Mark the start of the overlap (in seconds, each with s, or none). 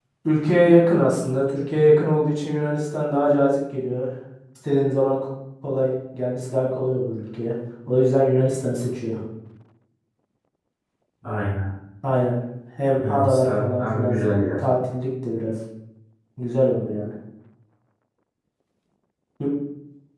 13.0 s